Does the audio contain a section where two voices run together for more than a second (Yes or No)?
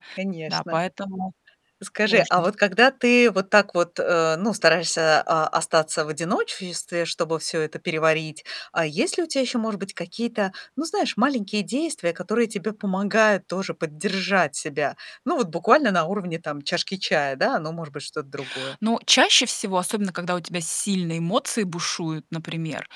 No